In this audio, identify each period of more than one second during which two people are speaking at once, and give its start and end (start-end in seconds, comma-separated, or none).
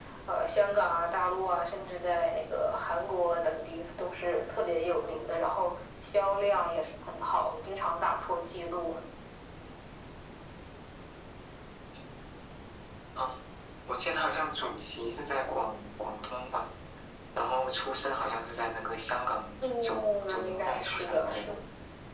19.6-21.6